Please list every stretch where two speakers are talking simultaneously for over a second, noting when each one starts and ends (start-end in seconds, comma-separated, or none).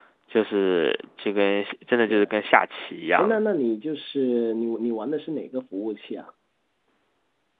none